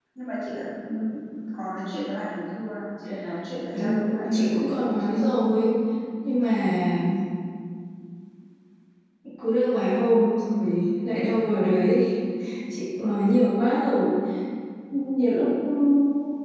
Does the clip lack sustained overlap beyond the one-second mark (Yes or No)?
No